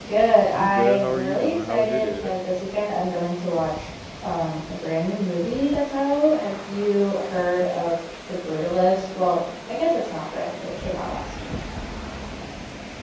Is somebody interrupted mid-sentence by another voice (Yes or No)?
Yes